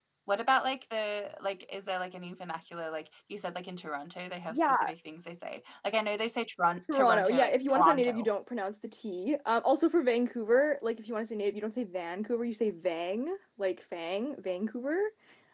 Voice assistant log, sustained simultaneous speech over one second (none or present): present